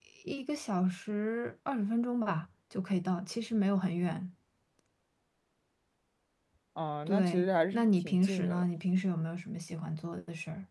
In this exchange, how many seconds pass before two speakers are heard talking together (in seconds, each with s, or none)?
7.1 s